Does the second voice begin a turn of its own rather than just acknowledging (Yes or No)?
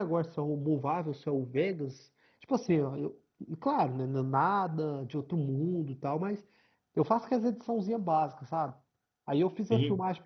No